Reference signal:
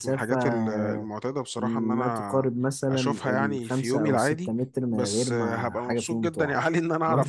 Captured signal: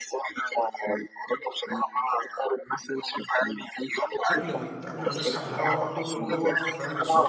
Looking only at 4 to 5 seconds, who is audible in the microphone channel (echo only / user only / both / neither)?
both